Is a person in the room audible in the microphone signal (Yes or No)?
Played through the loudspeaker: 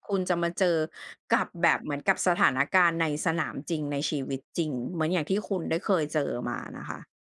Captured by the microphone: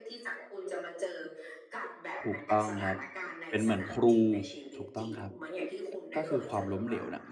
Yes